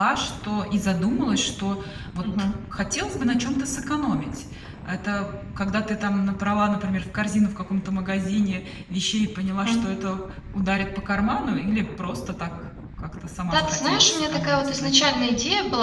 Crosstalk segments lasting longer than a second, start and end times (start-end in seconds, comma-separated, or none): 13.5-15.3